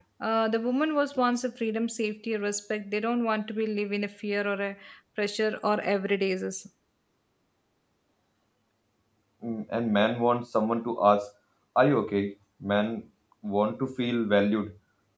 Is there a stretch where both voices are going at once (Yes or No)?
No